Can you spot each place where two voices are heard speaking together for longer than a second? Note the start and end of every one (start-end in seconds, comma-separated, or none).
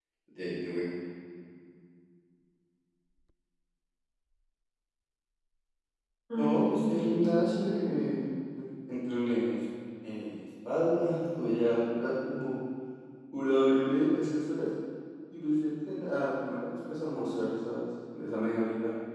6.3-7.9